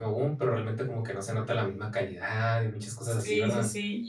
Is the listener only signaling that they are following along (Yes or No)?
No